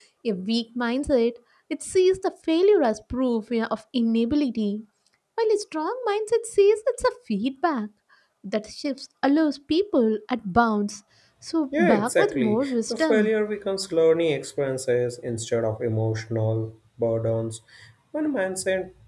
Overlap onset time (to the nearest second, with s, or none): 12 s